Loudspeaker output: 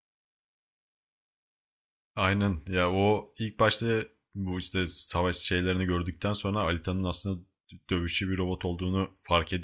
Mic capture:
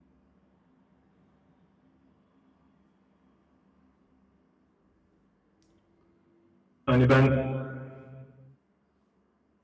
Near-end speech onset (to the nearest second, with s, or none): 7 s